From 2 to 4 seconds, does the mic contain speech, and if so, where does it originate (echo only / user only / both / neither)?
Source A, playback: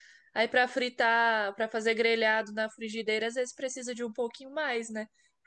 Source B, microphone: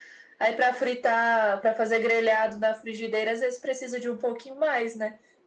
echo only